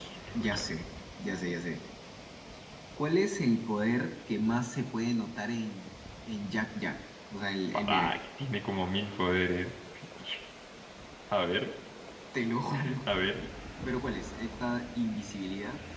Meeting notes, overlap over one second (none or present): none